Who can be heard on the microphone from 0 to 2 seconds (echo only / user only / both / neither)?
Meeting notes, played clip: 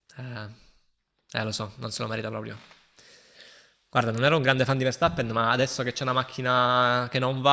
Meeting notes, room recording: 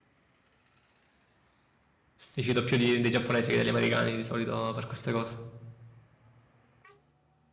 neither